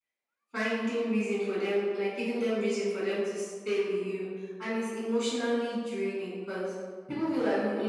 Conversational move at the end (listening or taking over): listening